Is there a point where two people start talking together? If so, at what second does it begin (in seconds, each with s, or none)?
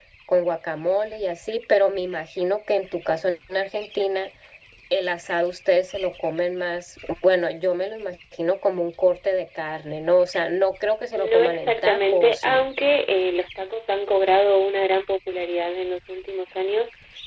11.1 s